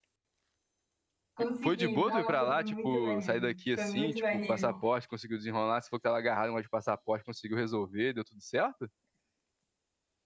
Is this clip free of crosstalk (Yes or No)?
No